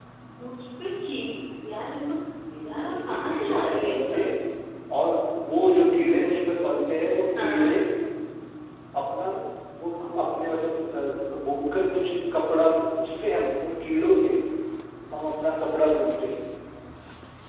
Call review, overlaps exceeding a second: present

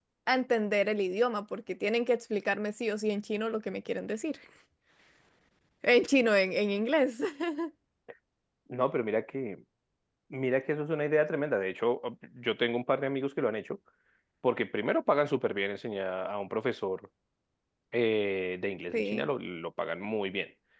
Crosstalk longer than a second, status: none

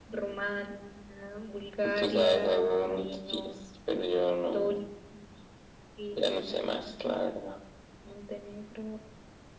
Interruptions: present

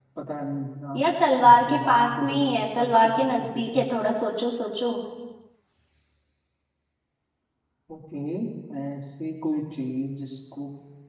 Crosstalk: present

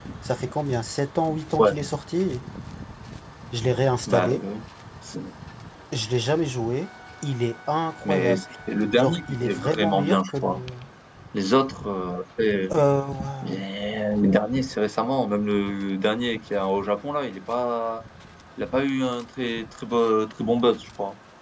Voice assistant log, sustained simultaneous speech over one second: present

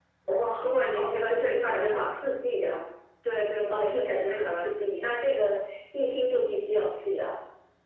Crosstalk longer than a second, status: present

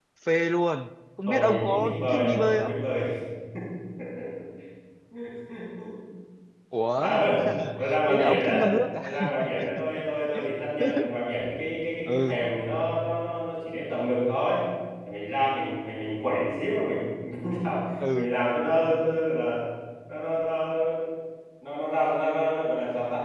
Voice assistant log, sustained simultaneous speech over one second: present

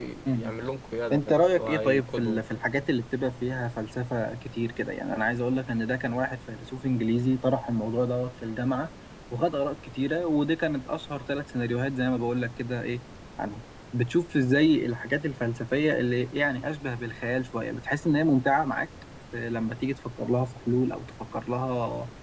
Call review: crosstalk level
present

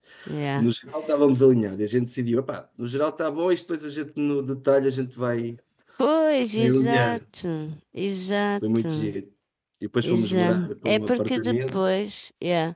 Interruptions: present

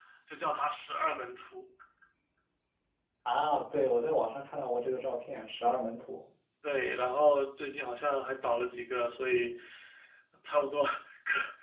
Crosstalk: none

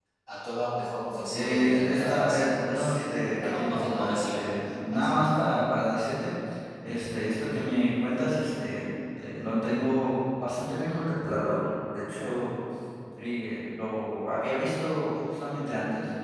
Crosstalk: present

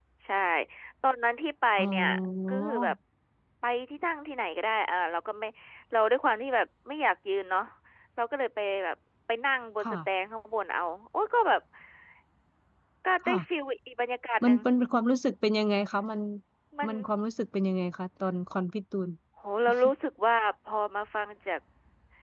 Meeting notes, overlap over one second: none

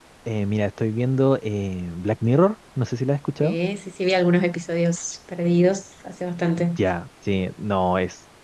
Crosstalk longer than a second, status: none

